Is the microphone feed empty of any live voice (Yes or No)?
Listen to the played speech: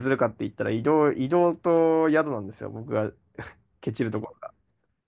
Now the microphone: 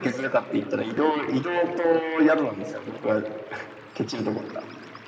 Yes